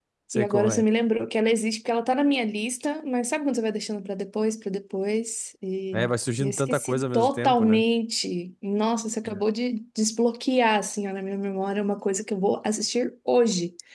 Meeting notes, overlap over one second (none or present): present